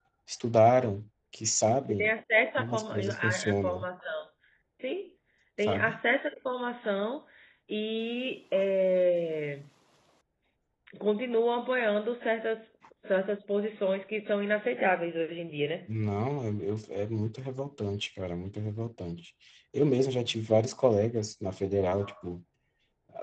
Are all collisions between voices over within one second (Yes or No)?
No